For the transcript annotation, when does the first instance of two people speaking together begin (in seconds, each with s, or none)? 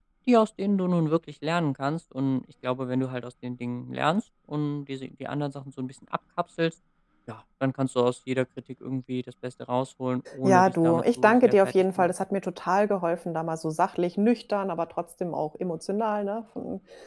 10.3 s